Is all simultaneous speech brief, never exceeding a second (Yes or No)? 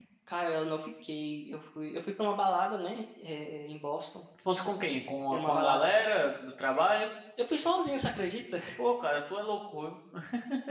Yes